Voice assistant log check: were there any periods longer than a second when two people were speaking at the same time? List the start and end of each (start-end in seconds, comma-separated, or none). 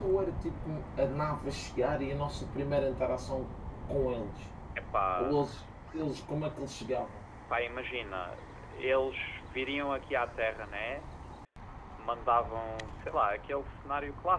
none